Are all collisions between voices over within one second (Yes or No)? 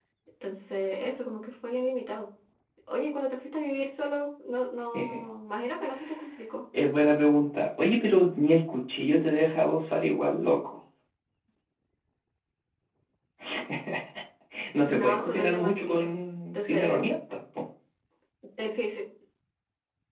No